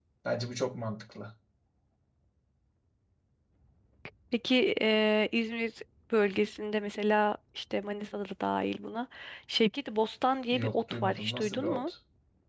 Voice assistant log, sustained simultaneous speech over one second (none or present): present